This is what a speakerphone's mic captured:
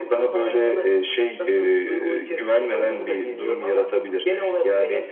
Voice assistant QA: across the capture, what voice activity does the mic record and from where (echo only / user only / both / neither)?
echo only